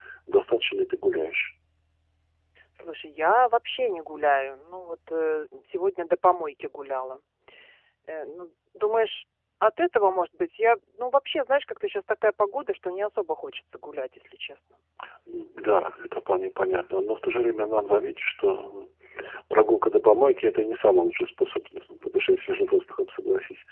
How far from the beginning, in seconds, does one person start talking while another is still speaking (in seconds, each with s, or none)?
none